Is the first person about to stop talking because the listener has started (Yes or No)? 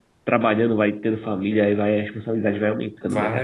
Yes